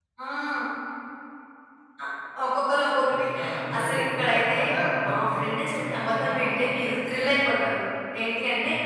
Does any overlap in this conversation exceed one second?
Yes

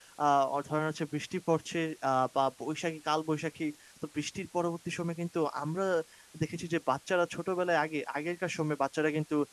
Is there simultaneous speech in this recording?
No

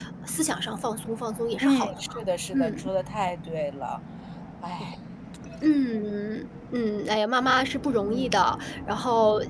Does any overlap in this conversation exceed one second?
No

